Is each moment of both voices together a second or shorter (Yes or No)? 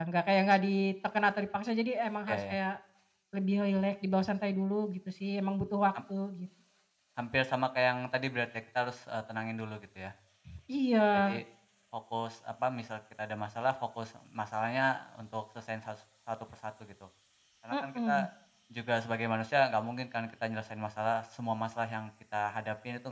Yes